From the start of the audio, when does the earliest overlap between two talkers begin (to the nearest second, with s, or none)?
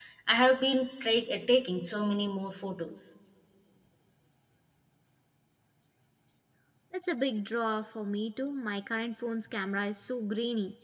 none